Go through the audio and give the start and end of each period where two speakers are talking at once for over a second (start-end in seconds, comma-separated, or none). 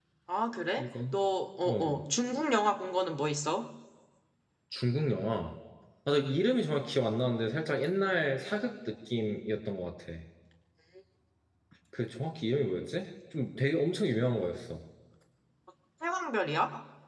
none